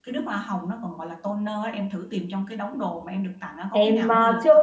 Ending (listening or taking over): taking over